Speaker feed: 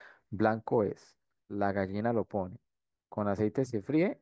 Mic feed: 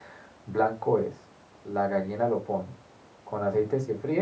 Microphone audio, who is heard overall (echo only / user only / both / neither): echo only